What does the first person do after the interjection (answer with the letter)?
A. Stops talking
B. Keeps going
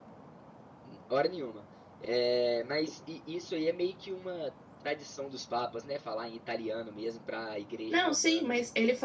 A